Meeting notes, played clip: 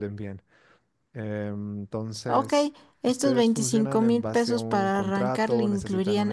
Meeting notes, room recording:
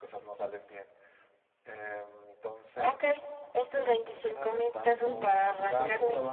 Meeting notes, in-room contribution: present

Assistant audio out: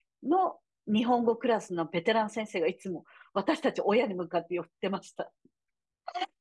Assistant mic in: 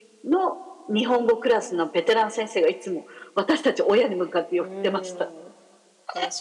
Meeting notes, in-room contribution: present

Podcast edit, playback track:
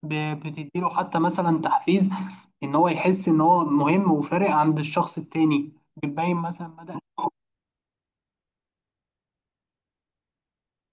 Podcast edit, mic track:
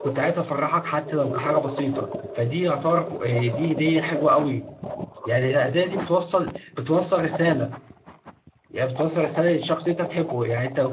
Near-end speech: present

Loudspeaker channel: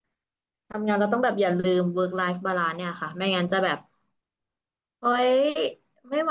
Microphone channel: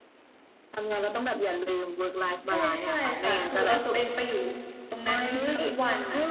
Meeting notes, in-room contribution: present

